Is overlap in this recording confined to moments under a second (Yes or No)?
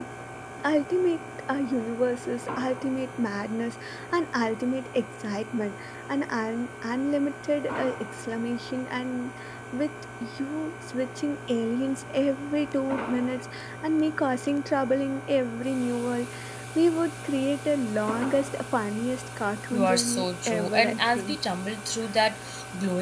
No